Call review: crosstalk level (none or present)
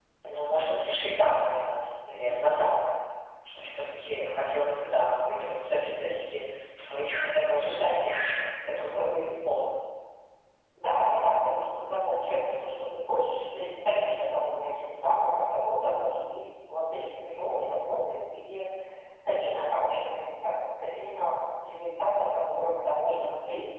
none